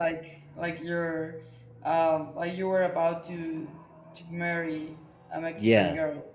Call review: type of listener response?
taking over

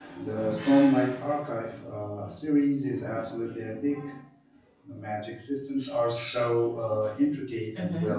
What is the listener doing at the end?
taking over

